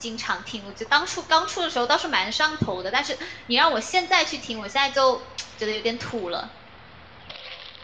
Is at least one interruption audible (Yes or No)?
No